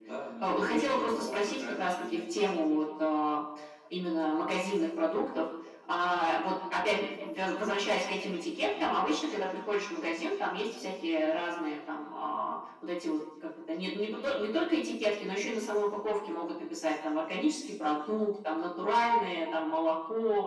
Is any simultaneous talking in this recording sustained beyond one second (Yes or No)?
Yes